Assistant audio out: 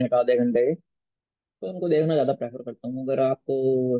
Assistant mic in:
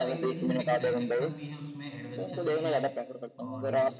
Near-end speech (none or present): present